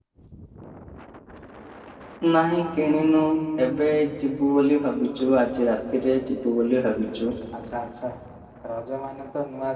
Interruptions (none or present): none